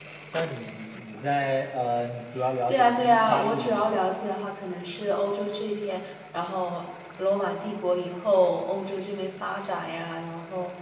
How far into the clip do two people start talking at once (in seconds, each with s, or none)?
2.7 s